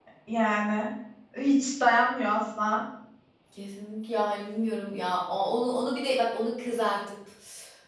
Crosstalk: none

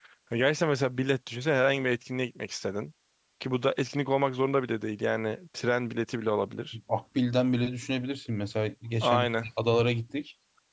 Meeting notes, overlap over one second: none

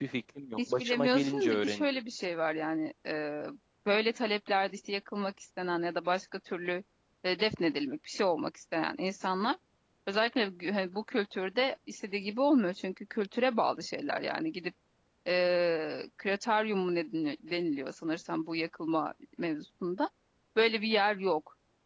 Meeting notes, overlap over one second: present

